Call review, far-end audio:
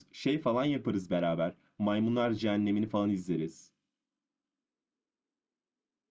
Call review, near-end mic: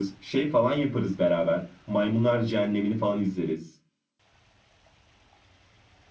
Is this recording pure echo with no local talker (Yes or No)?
Yes